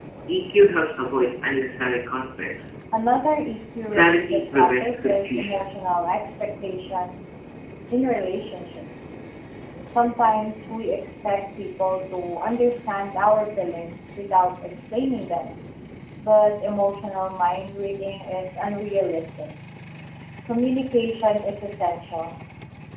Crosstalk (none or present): present